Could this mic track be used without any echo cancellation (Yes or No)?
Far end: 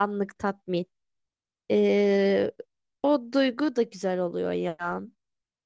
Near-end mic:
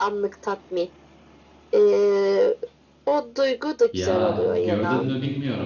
No